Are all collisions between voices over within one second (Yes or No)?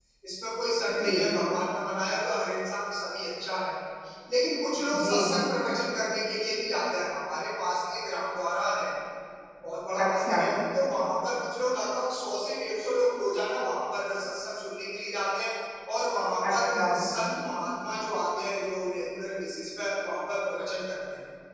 Yes